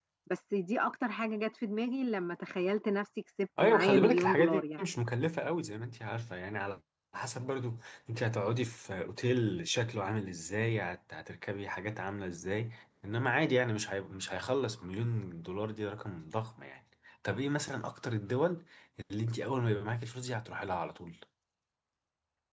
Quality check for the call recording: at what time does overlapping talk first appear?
4 s

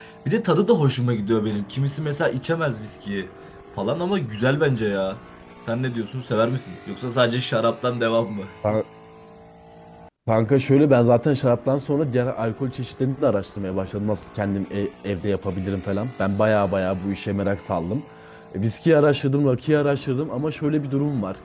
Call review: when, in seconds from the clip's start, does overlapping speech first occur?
none

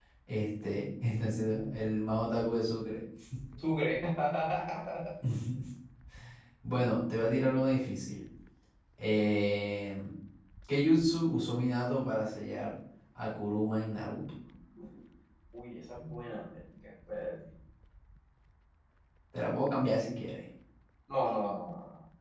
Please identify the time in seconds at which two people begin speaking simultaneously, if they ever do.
none

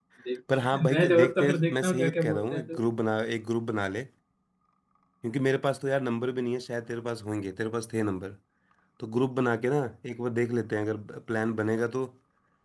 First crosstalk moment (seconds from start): 1 s

